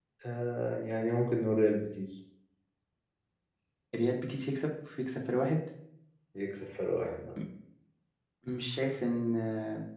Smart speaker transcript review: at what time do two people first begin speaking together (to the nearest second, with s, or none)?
none